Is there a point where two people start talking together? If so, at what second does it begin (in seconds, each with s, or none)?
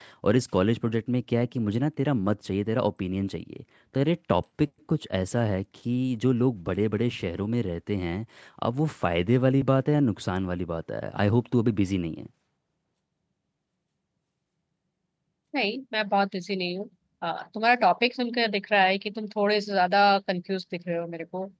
none